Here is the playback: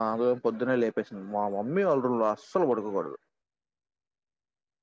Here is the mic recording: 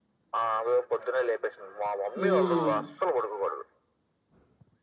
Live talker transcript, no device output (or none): హ్మ్